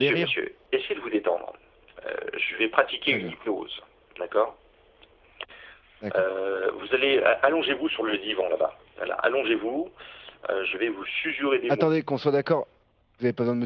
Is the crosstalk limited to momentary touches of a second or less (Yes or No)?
Yes